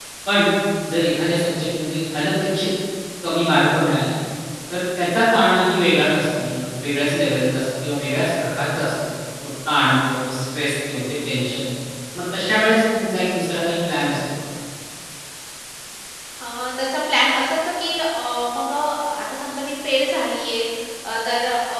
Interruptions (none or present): none